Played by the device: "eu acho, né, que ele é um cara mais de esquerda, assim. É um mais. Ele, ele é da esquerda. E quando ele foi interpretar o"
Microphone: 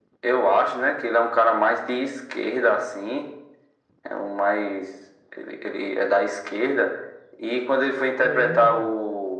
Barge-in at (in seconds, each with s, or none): 8.2 s